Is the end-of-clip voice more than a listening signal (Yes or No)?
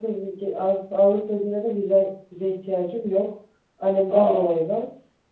No